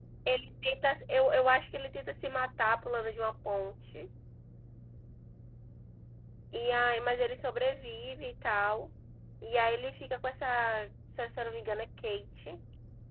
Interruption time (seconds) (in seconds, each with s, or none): none